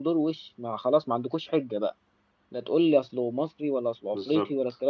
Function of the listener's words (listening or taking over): listening